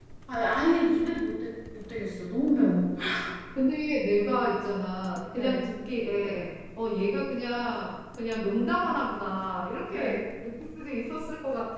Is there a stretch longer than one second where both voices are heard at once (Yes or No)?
No